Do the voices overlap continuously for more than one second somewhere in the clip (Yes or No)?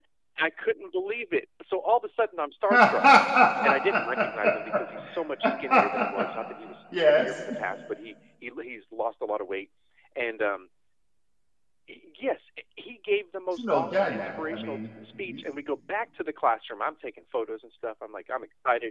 Yes